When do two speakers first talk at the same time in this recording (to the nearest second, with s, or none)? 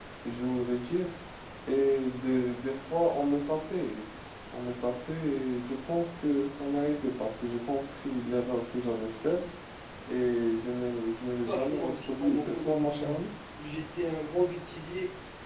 11 s